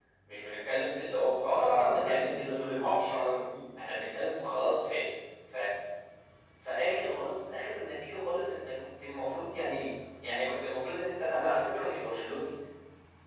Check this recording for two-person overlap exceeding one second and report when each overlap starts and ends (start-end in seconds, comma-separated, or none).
1.4-3.2